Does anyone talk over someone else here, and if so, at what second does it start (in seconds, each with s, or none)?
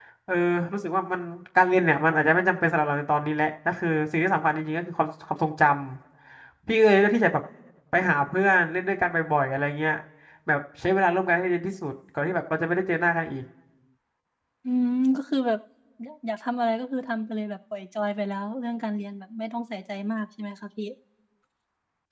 none